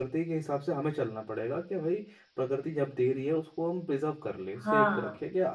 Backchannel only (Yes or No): Yes